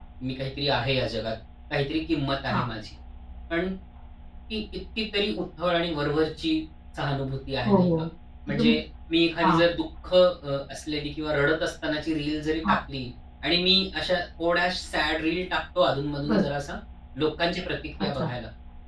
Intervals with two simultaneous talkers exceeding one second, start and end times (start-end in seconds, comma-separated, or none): none